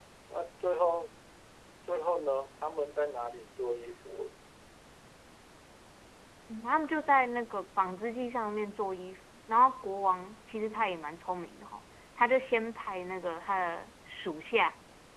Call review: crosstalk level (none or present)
none